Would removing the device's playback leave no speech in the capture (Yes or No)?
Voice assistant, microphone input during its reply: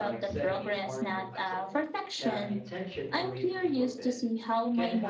No